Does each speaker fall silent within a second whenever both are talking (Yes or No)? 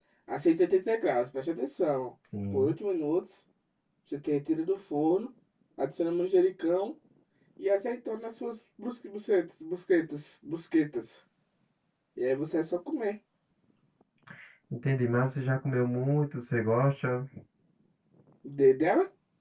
Yes